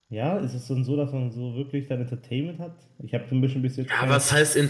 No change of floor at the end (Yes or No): No